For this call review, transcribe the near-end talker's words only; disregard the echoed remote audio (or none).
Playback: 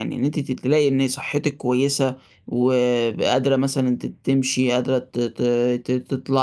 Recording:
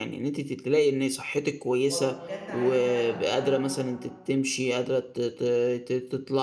وأبقى بجد عايزة أبقى